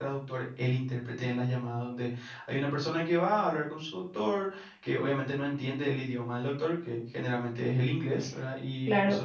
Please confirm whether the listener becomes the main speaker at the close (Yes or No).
Yes